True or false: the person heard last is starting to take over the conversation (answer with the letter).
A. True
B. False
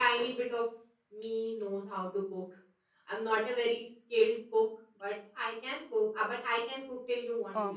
A